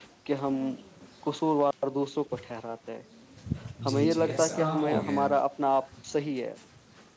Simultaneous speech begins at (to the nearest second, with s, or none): 4 s